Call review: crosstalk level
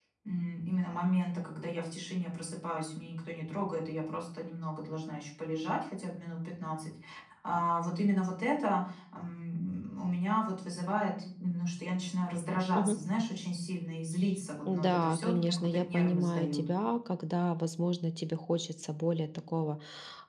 present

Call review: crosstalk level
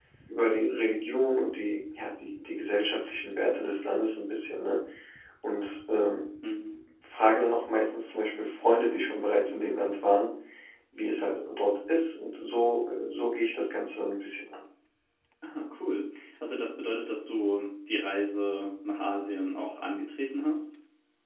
none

